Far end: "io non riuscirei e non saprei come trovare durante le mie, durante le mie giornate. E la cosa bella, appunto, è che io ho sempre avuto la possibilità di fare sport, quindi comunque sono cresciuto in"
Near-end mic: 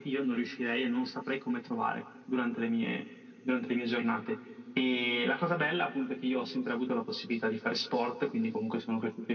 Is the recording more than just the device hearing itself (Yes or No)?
No